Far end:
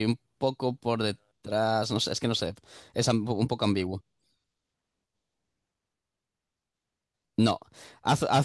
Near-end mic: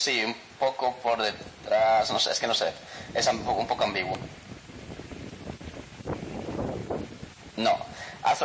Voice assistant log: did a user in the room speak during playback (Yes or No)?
No